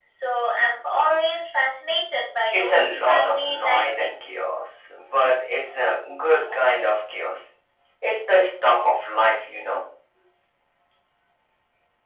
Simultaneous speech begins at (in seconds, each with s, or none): 2.5 s